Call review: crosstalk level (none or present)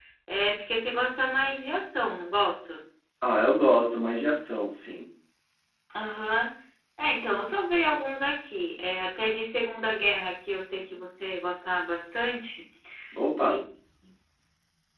none